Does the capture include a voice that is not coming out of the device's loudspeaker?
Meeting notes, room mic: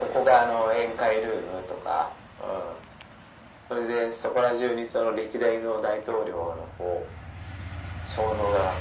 No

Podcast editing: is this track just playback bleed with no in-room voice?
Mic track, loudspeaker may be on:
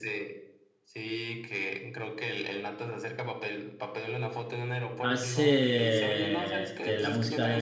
No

